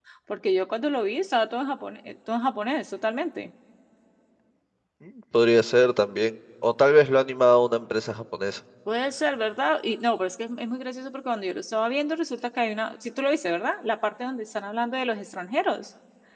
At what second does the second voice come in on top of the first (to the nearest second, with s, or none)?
none